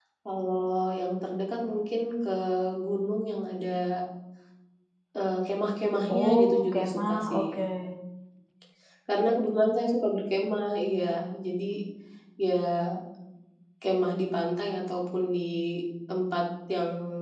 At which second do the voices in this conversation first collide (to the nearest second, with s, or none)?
6 s